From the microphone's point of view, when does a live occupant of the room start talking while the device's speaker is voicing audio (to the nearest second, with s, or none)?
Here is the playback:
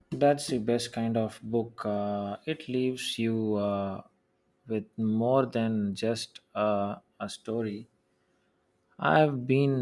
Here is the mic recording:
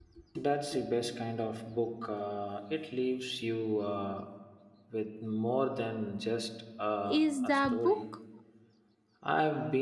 7 s